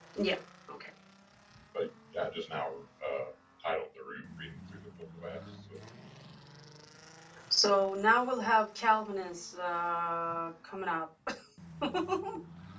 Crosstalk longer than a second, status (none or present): none